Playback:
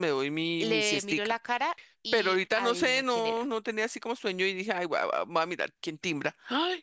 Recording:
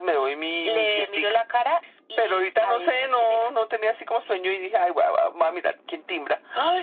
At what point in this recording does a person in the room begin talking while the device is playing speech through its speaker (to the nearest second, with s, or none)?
none